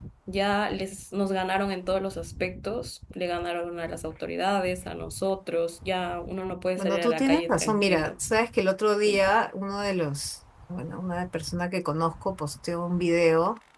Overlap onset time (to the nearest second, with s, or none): 7 s